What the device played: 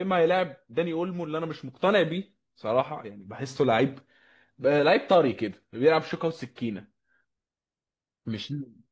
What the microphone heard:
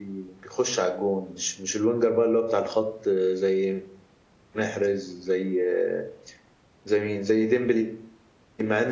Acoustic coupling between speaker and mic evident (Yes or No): No